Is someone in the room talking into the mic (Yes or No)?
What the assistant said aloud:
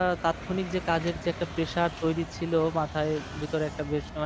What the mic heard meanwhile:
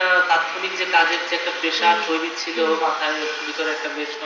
Yes